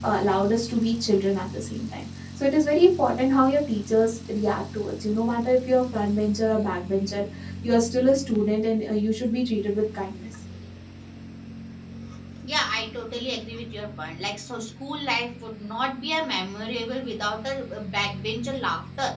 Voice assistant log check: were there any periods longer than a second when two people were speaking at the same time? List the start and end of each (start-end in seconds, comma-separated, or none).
none